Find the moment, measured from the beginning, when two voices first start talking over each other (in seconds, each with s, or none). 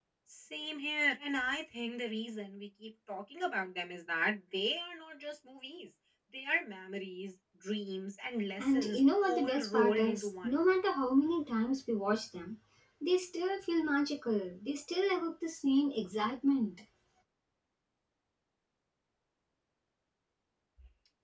8.6 s